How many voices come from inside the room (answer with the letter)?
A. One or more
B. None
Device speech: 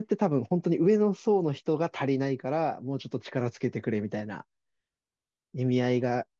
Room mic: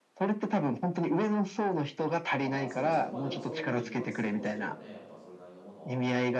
A